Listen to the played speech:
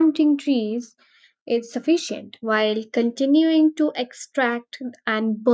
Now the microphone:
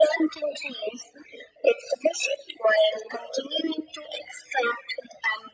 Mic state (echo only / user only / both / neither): echo only